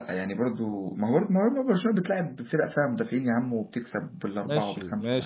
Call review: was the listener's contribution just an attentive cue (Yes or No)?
No